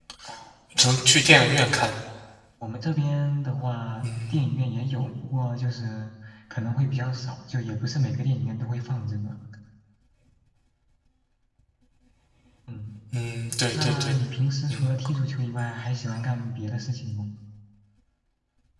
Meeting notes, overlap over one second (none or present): none